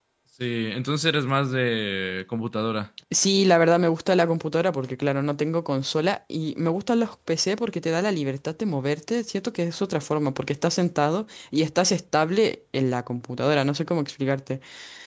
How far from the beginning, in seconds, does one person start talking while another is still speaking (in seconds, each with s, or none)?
none